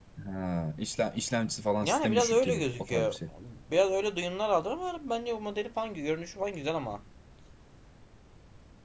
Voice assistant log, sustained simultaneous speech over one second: present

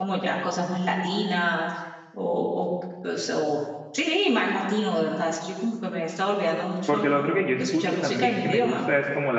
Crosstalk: present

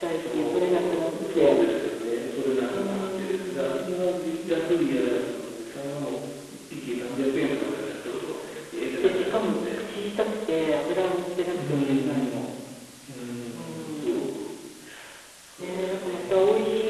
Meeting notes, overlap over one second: present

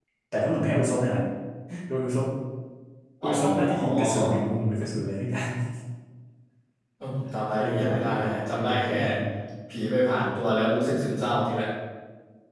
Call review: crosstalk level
present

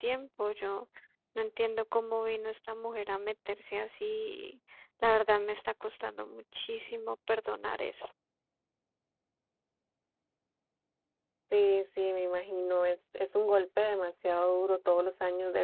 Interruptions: none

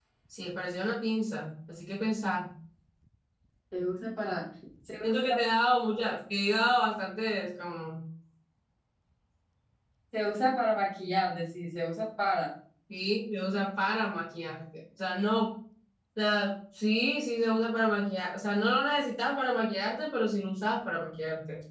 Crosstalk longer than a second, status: none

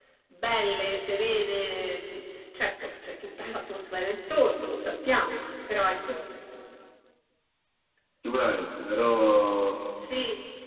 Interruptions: none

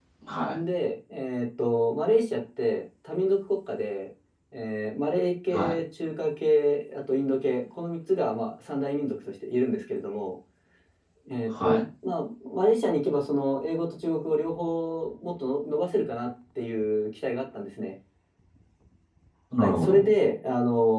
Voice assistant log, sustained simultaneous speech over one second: none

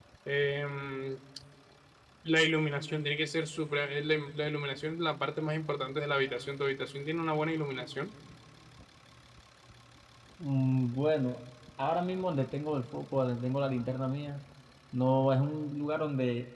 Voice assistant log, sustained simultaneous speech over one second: none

